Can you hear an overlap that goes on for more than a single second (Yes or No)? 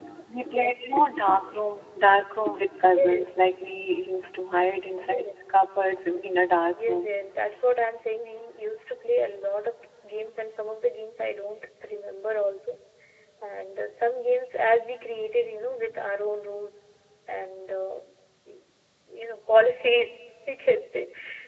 No